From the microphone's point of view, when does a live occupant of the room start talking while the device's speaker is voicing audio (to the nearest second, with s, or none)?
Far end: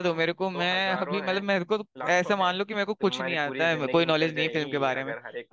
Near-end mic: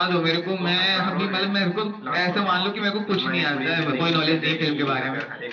none